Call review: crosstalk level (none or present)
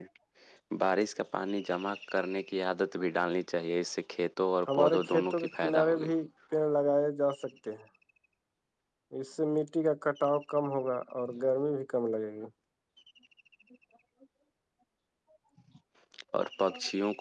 present